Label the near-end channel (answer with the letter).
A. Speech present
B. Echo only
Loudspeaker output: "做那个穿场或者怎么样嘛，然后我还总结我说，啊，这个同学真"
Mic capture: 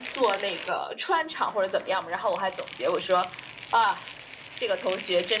B